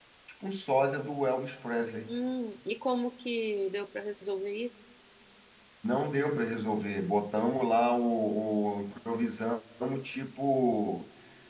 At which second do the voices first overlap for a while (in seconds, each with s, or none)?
none